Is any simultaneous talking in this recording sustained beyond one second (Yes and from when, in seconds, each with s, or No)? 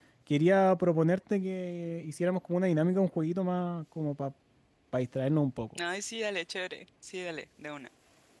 No